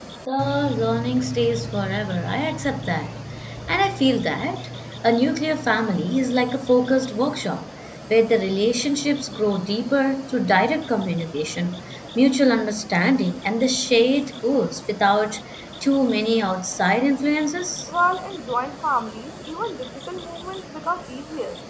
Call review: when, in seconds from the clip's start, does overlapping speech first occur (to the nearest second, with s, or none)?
none